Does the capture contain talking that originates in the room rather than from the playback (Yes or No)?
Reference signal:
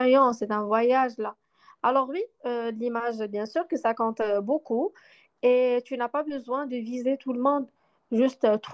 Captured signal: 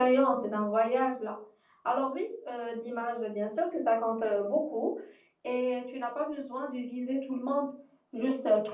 No